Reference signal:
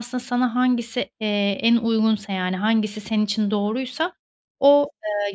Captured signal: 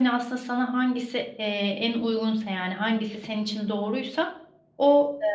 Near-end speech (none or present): none